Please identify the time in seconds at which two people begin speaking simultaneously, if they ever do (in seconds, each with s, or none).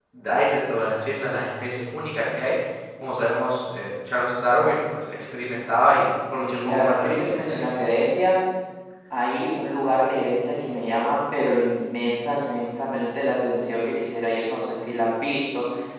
6.2 s